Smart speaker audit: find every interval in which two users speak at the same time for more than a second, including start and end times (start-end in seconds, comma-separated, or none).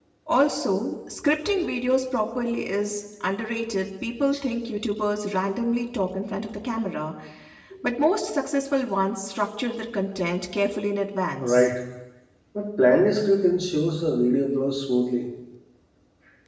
none